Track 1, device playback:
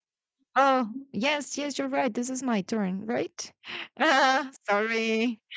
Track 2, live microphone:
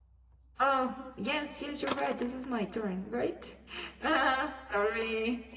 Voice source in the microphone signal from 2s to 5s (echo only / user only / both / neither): echo only